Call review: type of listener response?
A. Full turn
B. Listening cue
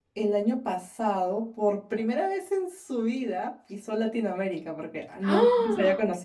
B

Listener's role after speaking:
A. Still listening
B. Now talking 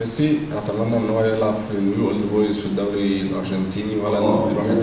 B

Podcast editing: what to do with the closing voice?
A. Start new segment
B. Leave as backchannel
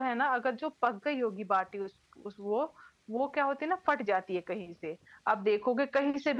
B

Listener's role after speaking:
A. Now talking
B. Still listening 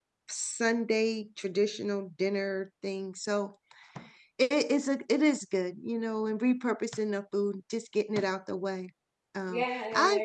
A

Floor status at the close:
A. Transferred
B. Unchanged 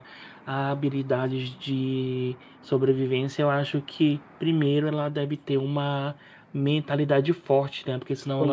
B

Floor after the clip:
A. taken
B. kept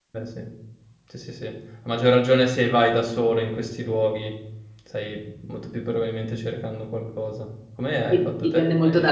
A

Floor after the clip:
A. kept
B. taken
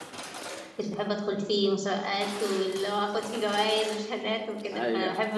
A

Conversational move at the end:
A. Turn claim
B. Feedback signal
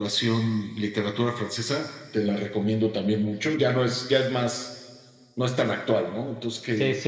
A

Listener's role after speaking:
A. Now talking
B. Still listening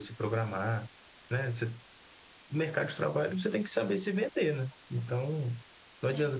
B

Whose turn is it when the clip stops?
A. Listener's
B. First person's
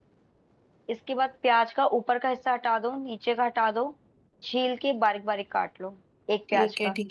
A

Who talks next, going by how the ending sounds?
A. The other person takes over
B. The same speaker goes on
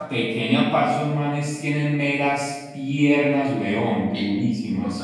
A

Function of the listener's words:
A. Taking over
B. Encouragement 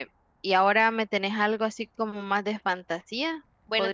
A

